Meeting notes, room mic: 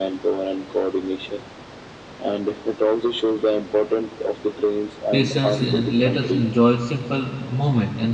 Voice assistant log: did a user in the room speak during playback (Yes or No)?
Yes